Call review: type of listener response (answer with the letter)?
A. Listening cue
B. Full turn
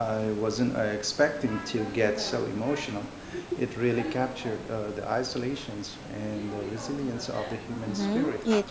B